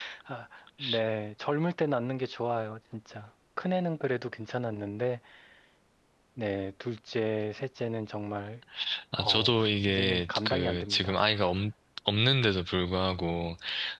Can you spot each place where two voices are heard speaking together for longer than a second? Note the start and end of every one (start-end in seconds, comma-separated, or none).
9.2-11.2